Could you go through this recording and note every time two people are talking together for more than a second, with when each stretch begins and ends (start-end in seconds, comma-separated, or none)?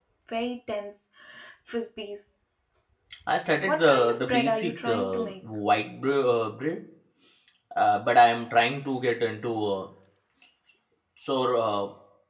3.7-5.2